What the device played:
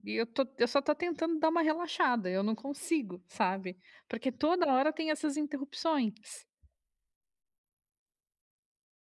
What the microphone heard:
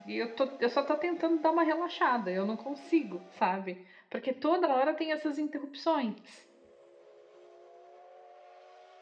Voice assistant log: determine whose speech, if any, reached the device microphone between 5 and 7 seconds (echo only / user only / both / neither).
echo only